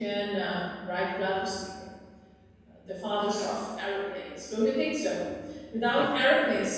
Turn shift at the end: No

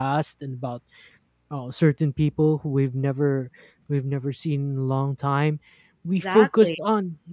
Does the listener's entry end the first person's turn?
No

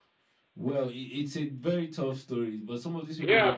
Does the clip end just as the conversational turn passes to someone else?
Yes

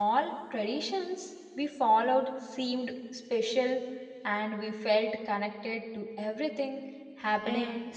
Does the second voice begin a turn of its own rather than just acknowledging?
Yes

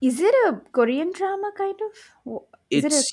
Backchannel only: No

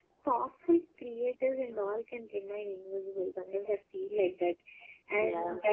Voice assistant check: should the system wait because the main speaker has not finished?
Yes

